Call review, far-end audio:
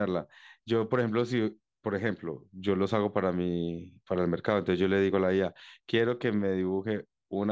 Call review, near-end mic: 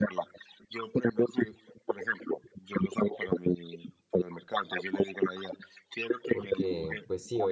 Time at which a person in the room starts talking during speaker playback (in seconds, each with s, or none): 6.3 s